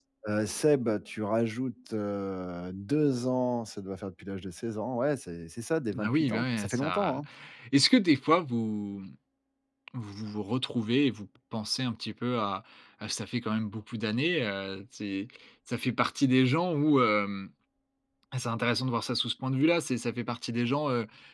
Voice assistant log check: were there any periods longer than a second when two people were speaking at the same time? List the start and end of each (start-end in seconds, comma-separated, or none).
6.0-7.2